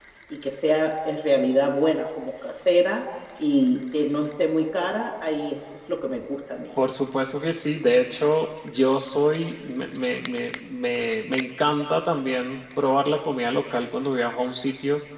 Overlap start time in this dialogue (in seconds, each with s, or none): none